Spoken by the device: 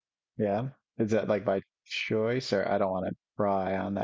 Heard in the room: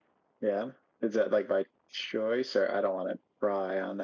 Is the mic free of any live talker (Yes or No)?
Yes